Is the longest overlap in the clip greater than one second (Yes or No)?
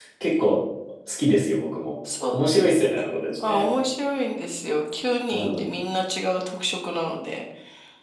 No